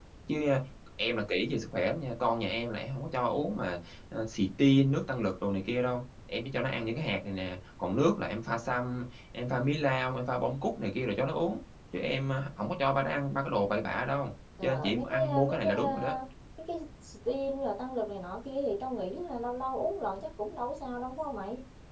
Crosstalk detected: Yes, from 14.6 s

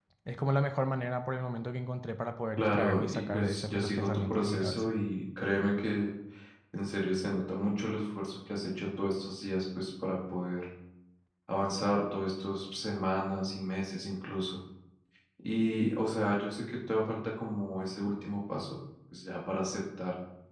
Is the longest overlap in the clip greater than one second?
Yes, from 2.6 s

